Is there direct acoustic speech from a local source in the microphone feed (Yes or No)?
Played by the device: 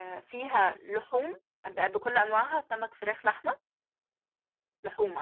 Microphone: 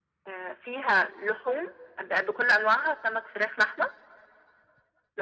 No